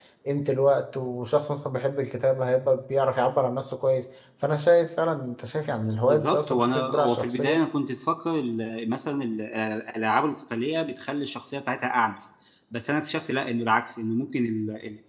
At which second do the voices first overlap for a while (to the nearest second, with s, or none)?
6 s